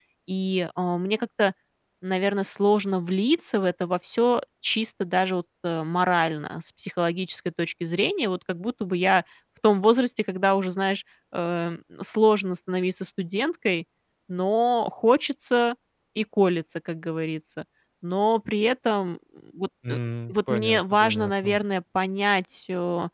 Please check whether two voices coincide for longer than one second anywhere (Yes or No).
Yes